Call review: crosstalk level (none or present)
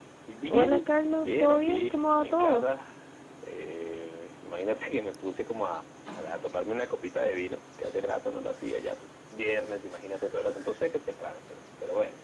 present